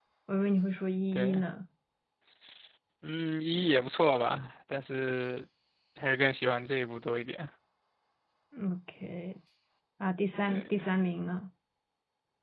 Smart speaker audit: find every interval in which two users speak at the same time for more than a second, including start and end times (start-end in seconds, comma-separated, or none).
none